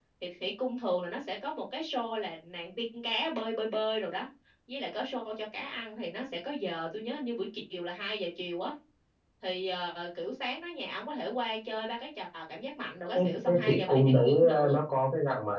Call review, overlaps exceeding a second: present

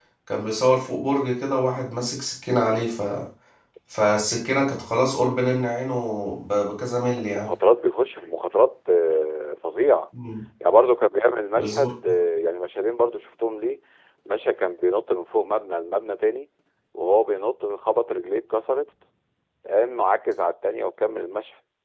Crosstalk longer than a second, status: none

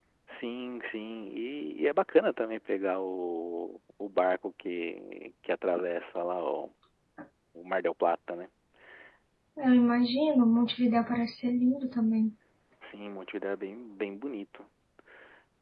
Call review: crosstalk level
none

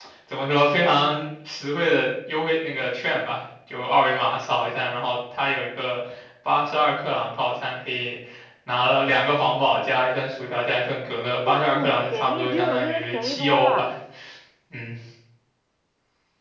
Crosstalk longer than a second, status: present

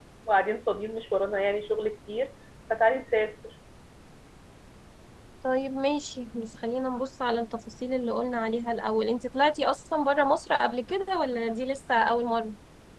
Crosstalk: none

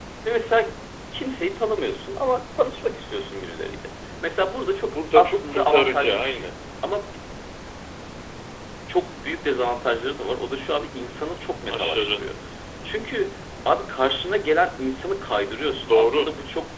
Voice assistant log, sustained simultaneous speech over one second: present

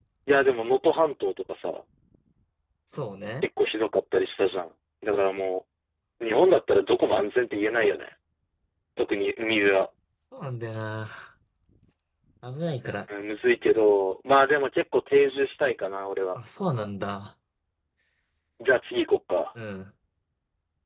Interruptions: none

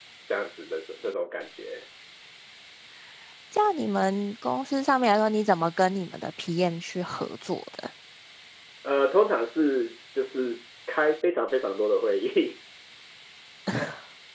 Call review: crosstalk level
none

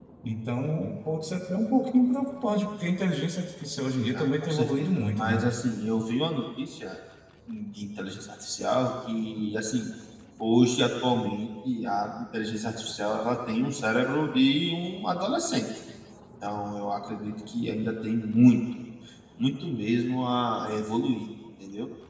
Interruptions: present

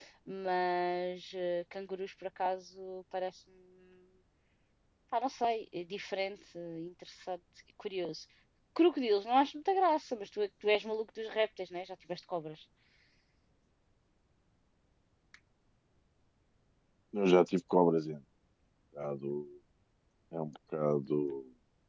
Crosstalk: none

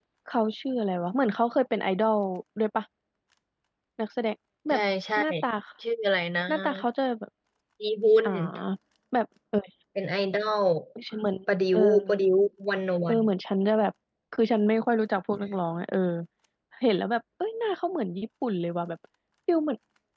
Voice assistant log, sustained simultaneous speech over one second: none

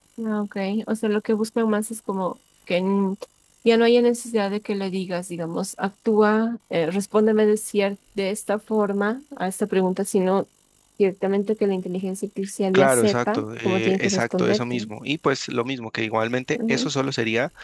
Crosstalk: present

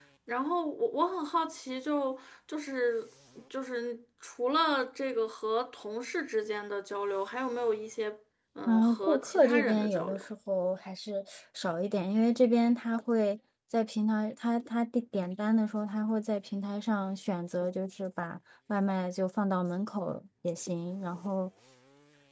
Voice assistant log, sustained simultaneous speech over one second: present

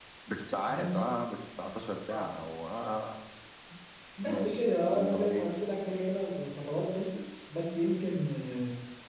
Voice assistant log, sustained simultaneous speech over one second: present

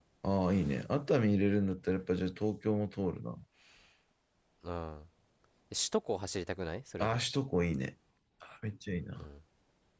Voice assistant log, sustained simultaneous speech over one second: none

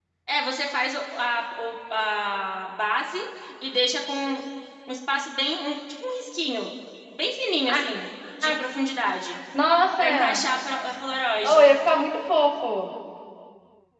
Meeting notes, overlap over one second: none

